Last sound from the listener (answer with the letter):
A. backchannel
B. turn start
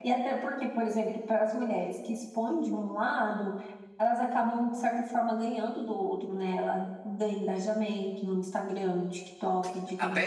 A